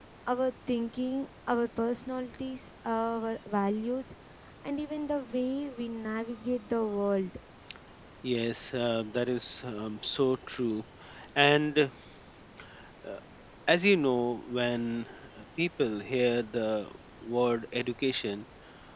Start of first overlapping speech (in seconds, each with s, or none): none